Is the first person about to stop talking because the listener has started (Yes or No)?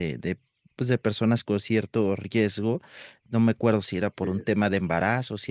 No